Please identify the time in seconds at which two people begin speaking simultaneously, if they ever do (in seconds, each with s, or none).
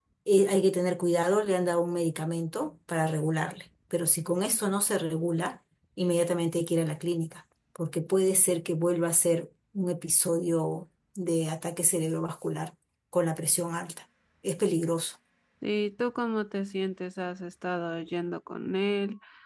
none